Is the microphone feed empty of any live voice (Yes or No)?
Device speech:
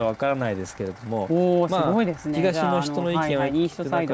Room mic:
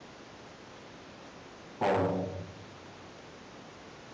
No